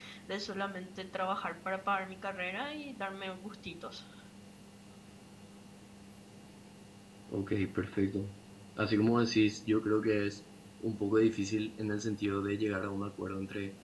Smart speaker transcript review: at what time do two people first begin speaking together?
none

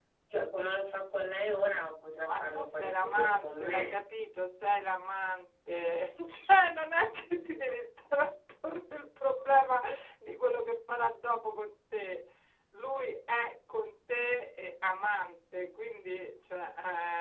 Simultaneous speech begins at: 2.2 s

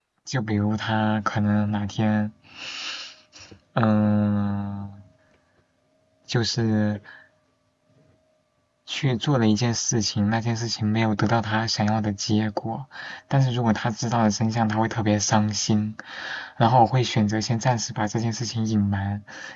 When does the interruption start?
none

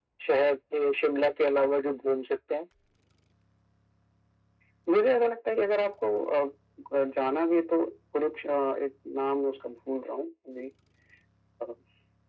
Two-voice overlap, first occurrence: none

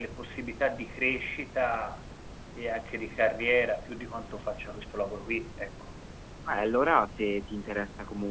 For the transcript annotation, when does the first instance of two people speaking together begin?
none

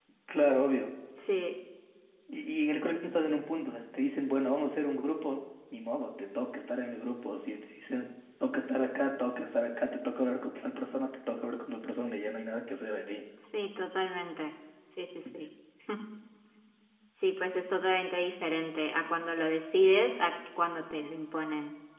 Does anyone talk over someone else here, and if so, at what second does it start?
none

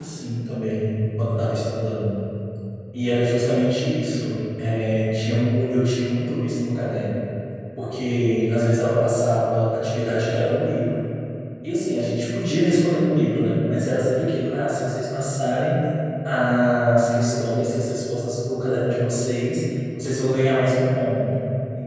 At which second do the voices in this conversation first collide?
none

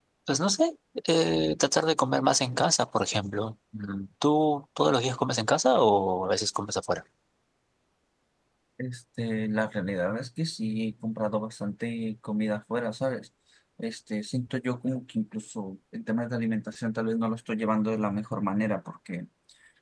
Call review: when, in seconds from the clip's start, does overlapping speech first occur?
none

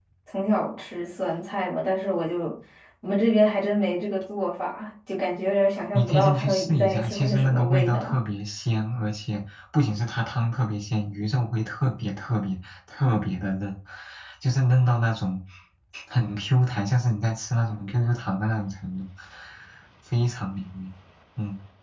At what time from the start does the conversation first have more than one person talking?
5.9 s

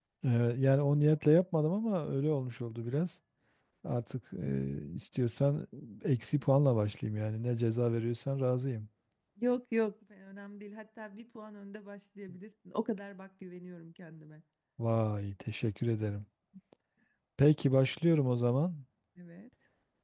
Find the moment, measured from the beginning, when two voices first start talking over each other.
none

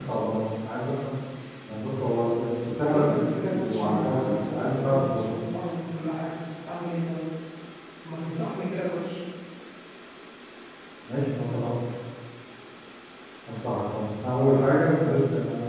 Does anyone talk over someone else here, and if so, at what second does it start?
2.9 s

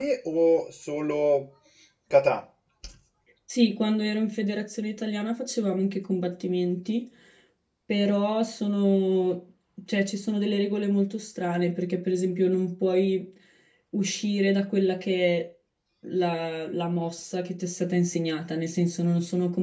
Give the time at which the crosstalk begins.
none

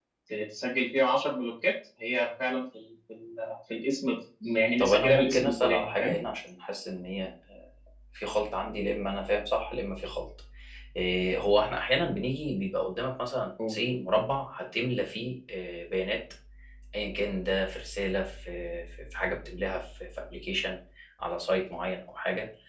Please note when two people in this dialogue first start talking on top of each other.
4.8 s

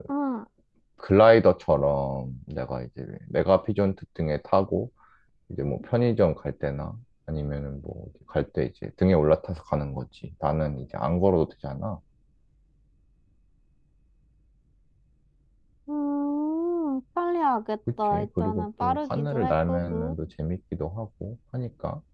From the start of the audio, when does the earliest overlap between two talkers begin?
18.1 s

